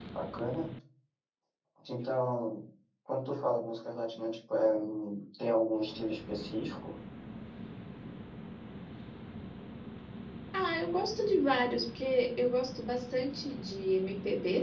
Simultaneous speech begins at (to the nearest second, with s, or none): none